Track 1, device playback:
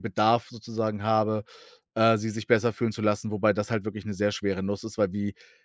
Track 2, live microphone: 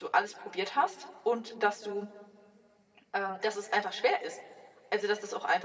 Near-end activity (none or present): present